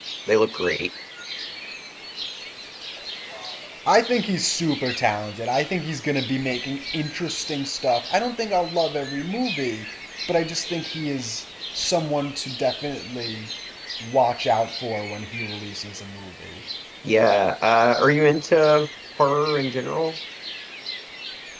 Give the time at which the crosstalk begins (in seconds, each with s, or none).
none